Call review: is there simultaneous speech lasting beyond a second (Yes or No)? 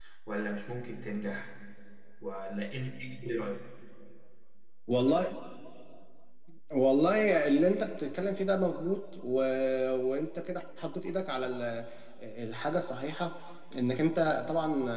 No